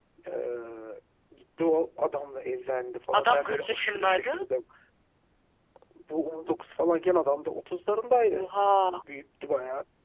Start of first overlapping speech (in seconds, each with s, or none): 3.1 s